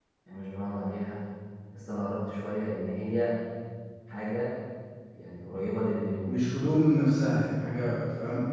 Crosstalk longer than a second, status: none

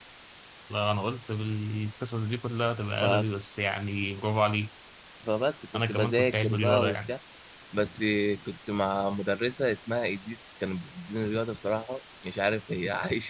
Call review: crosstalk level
present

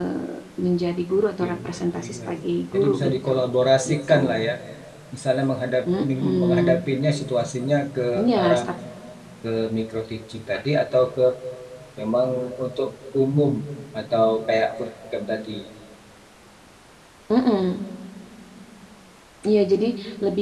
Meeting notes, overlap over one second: present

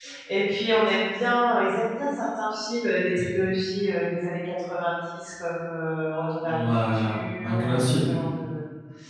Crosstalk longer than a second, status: present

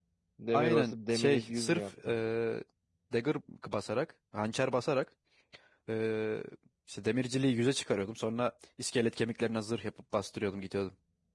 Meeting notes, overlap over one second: present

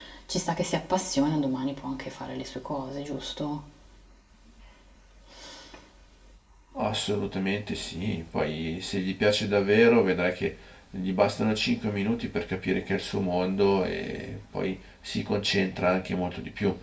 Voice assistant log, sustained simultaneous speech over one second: none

